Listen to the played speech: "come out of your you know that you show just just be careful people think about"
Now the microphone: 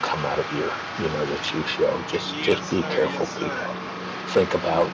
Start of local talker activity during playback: 2.2 s

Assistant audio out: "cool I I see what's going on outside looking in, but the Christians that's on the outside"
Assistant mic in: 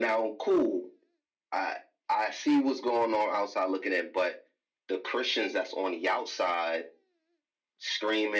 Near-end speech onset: none

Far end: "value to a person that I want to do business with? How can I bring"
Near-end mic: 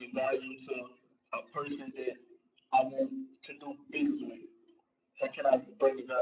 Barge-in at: none

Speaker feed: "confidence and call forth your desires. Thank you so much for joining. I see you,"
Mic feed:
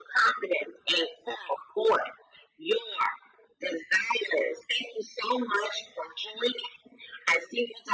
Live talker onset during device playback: none

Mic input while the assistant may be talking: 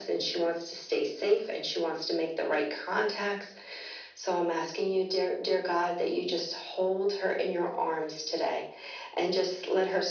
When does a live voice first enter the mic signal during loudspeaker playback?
none

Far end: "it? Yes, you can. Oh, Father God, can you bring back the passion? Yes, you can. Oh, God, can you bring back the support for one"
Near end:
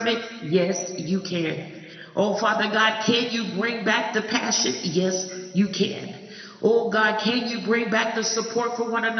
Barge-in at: none

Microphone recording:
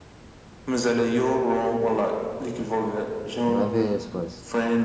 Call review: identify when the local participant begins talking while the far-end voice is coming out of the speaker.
3.5 s

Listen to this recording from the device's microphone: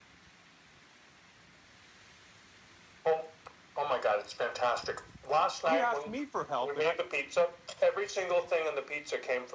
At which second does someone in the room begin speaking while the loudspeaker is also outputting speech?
5.7 s

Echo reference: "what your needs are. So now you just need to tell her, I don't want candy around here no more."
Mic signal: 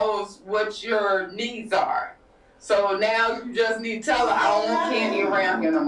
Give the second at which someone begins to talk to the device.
4.1 s

